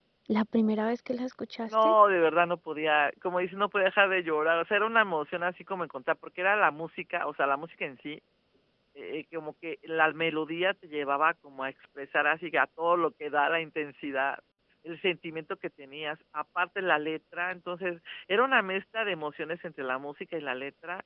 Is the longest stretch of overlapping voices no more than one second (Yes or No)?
Yes